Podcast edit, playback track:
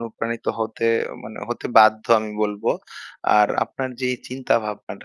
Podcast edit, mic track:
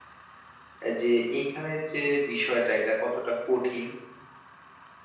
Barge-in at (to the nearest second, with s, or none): 1 s